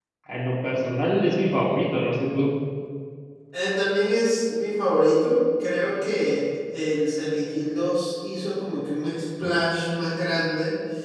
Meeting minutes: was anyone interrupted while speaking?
No

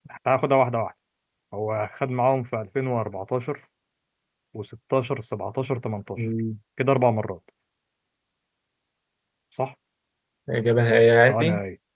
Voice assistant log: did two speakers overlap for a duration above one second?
No

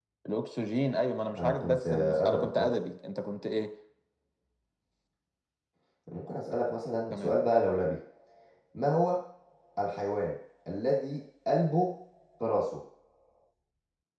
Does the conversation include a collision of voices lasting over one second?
Yes, from 1.4 s

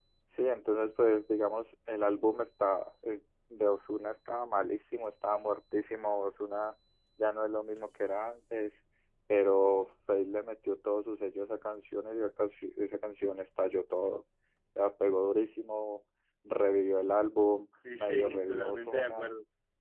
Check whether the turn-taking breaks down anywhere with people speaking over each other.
Yes, from 17.8 s

